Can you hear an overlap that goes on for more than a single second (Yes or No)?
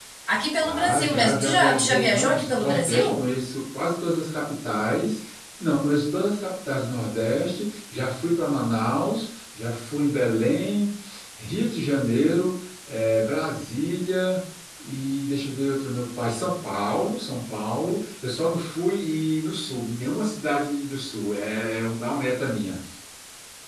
Yes